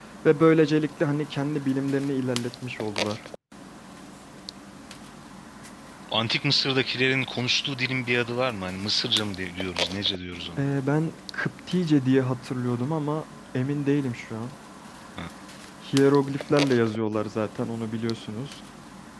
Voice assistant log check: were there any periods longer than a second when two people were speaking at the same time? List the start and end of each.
none

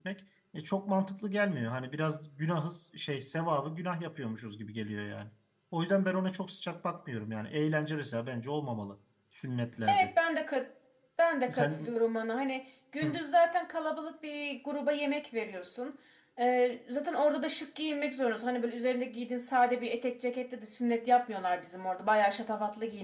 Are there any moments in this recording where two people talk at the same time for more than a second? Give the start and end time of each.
none

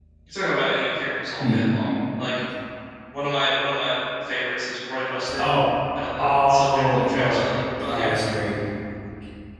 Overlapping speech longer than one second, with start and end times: 6.2-7.4

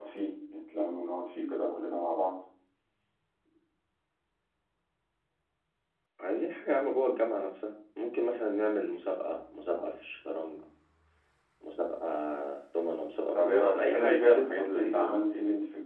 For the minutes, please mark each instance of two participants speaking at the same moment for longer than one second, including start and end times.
13.3-15.2

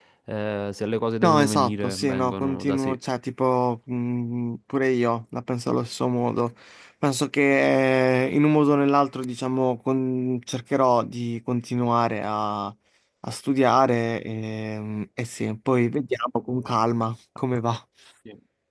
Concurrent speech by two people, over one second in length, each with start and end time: 1.2-3.0

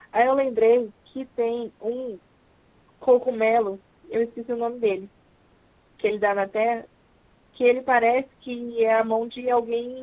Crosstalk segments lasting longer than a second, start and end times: none

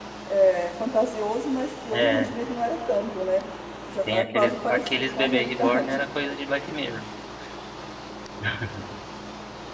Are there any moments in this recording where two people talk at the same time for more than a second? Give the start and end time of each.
4.1-6.0

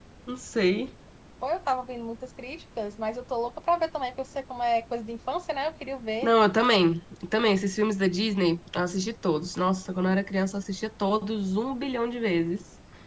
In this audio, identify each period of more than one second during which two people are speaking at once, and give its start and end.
none

